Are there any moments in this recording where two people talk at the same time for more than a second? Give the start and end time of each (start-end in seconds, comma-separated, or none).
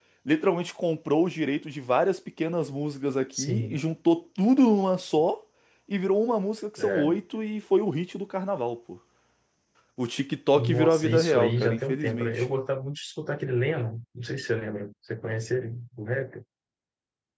10.5-12.4